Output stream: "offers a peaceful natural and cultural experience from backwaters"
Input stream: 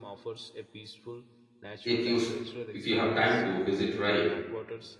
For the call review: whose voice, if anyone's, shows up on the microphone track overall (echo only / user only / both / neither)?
both